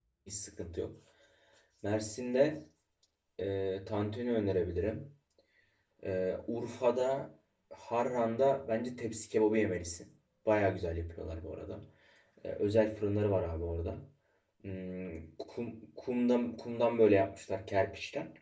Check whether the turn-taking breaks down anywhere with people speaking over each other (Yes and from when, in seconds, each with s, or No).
No